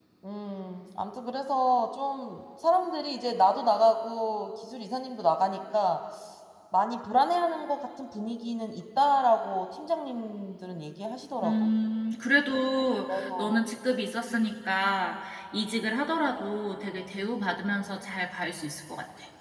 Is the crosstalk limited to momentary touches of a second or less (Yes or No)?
Yes